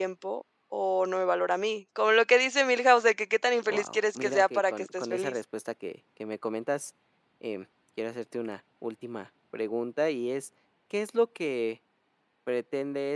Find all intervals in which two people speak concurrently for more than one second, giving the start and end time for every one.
3.6-5.4

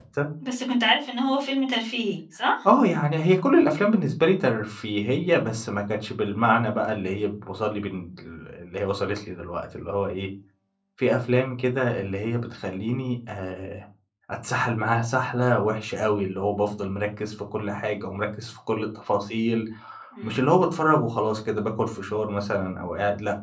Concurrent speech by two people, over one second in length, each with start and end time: none

